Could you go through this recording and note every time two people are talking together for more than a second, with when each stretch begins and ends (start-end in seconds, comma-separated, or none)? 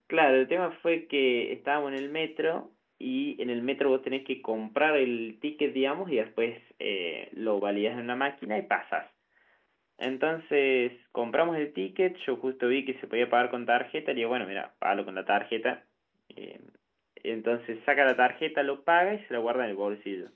none